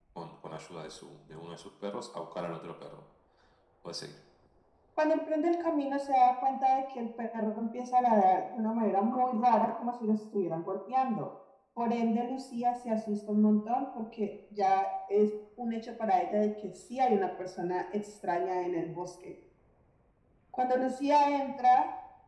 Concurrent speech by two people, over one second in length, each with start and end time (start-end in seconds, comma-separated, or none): none